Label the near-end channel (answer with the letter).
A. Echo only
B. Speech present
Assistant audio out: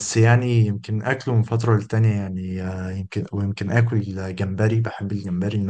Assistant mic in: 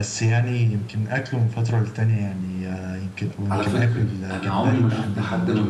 B